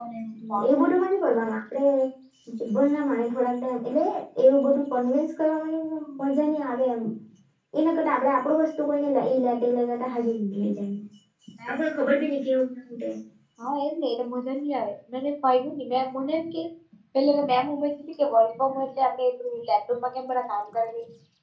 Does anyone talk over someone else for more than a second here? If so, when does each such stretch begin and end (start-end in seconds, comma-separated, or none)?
none